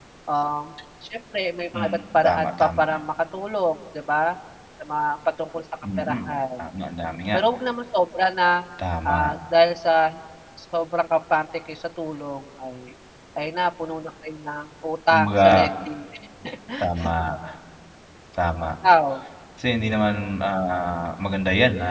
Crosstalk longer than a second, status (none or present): present